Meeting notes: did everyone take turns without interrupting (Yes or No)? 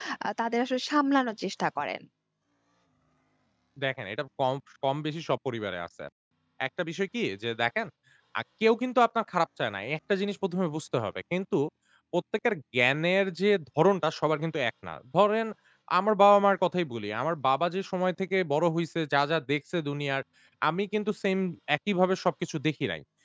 Yes